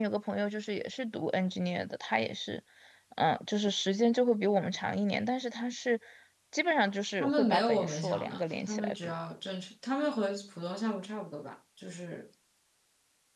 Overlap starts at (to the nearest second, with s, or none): 7 s